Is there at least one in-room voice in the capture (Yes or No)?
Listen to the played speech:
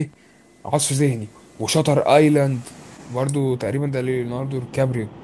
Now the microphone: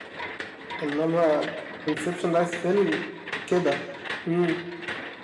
Yes